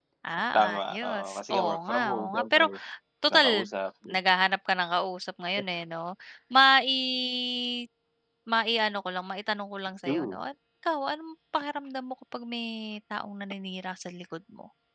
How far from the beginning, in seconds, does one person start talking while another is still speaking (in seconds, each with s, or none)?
0.6 s